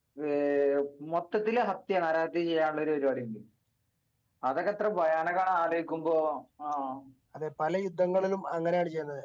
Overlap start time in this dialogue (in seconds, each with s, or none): none